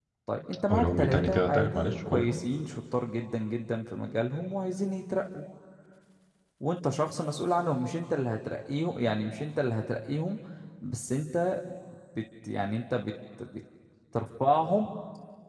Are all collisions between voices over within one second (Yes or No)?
No